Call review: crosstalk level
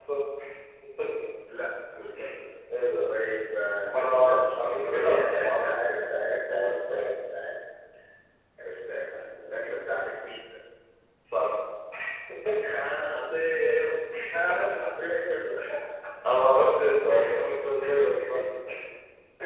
present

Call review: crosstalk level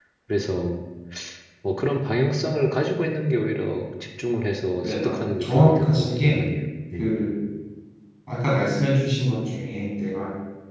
present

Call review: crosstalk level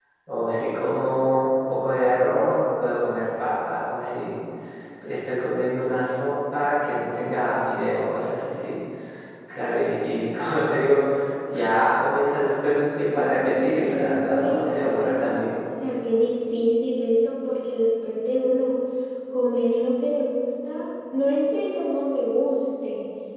present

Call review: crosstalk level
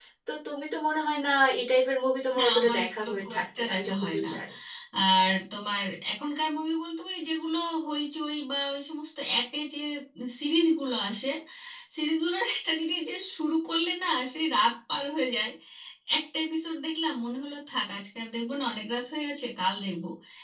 present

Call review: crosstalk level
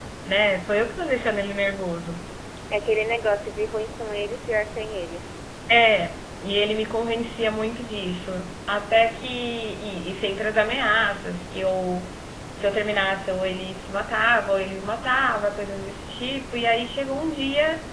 none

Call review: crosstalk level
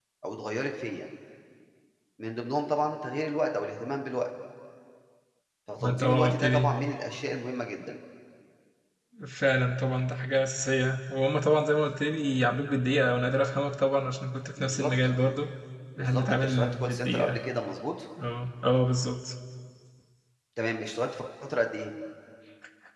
present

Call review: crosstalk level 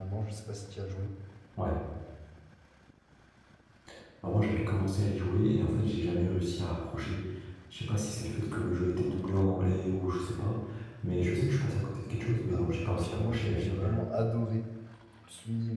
present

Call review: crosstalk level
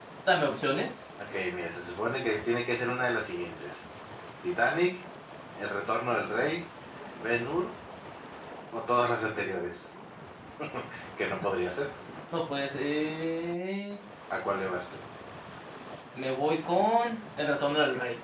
none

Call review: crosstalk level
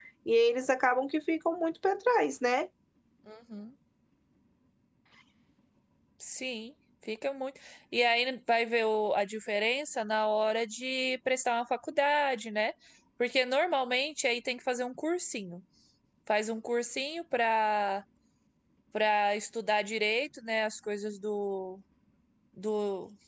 none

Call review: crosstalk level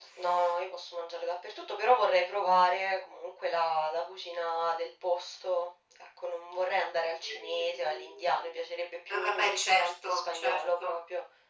present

